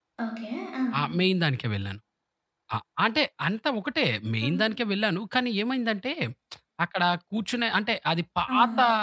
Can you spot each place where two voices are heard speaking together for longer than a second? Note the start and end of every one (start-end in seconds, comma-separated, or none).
none